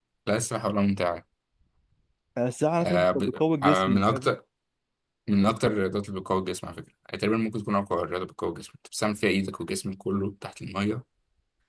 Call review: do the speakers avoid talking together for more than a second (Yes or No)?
No